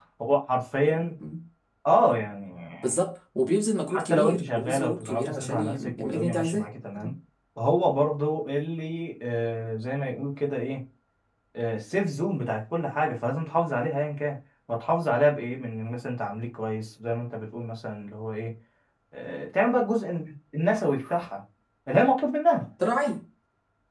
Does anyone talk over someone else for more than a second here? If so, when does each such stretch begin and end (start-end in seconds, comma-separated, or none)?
3.9-6.7